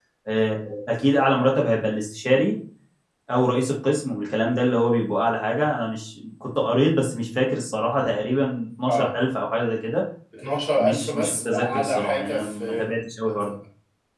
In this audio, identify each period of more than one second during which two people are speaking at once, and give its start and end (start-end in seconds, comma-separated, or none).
10.8-12.9